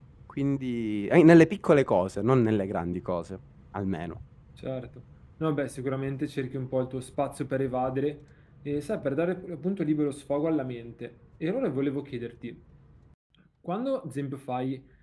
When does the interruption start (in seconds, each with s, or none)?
none